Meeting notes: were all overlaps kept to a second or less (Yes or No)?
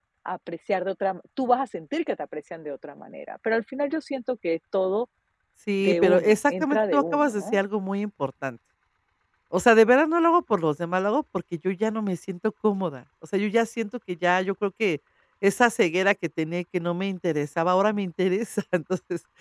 No